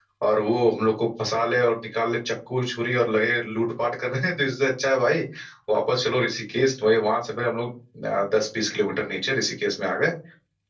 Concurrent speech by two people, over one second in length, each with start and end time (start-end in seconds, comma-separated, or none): none